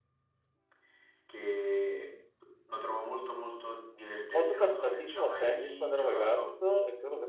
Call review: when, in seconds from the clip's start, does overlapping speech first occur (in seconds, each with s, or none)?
4.3 s